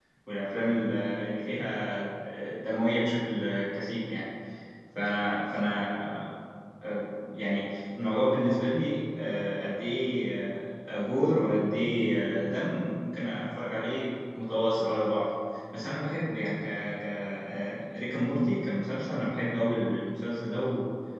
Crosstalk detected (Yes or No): No